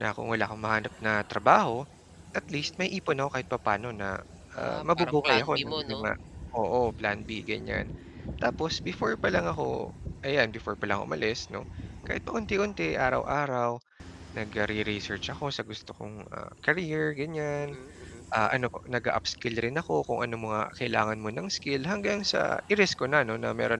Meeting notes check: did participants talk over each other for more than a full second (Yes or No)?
Yes